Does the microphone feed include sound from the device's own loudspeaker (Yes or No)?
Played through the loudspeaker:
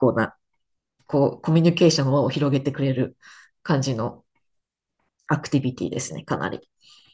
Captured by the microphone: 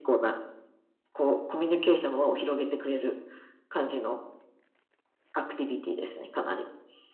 Yes